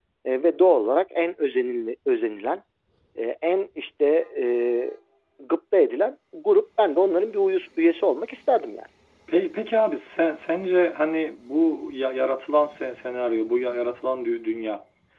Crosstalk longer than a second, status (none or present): none